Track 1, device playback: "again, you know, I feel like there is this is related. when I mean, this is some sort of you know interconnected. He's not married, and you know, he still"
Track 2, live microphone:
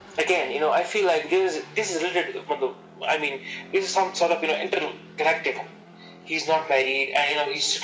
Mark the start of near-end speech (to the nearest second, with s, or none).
none